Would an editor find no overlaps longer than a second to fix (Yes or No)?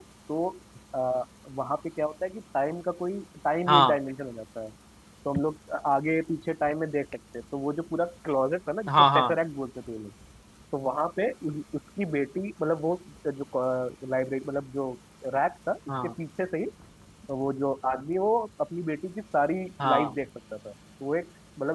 Yes